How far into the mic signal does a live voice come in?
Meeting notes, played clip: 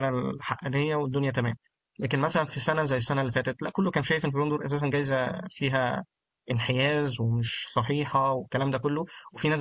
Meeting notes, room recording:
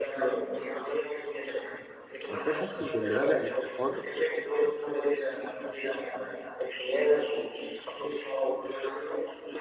2 s

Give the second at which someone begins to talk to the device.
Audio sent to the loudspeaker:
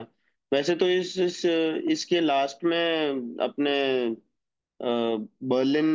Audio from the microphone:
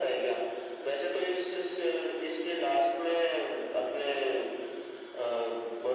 none

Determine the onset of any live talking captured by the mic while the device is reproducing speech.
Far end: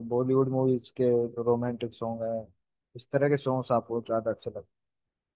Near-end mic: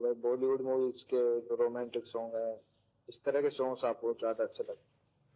none

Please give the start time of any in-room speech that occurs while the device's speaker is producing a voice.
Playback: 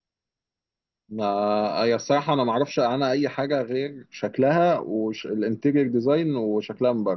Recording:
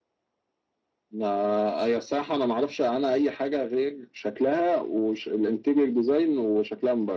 none

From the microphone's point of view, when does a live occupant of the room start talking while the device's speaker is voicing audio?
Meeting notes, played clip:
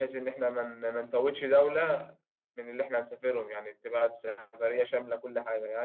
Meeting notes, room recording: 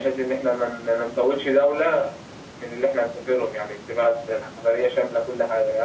none

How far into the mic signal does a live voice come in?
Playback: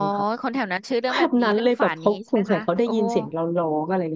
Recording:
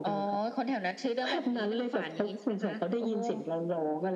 none

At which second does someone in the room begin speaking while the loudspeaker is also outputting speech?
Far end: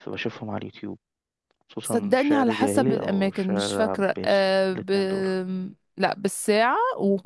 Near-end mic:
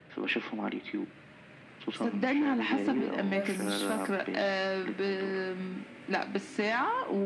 3 s

